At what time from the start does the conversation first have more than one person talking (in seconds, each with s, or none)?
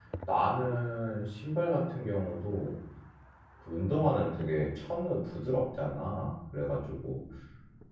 none